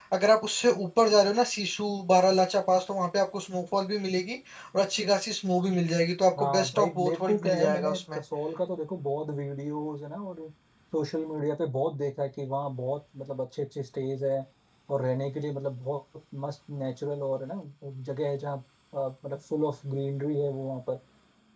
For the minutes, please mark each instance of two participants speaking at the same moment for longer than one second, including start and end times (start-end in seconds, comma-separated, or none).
6.4-8.2